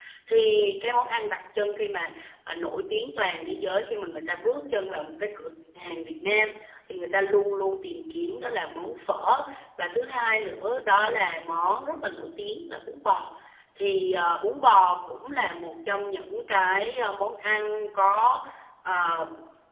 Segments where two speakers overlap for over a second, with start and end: none

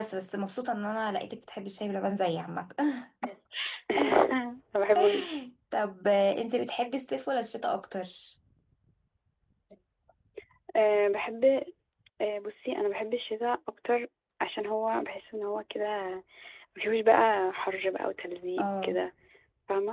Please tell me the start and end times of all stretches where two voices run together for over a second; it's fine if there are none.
none

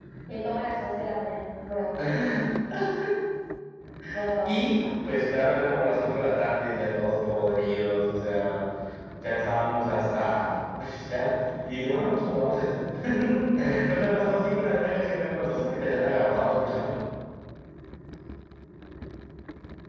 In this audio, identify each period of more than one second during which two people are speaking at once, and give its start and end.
none

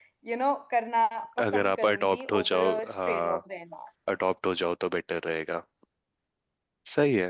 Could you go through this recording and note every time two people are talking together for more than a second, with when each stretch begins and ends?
1.4-3.4

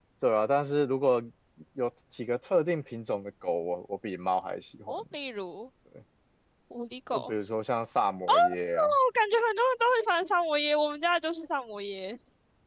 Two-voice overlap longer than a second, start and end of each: none

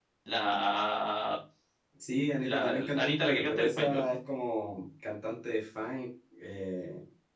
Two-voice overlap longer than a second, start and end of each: 2.4-4.0

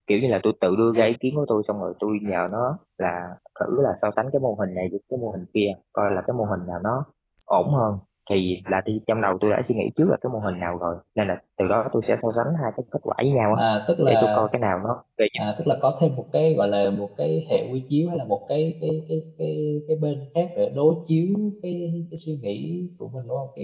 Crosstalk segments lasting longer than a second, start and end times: none

